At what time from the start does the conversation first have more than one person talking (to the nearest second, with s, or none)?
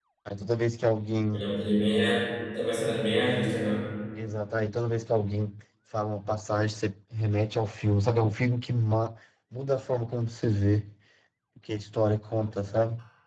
none